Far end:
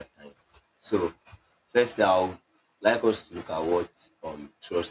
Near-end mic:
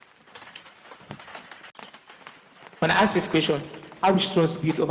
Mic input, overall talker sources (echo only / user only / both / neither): user only